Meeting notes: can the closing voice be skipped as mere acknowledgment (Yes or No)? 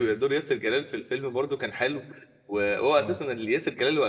Yes